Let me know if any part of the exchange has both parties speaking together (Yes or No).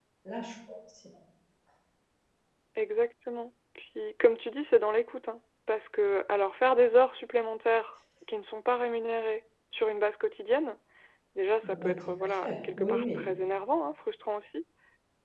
Yes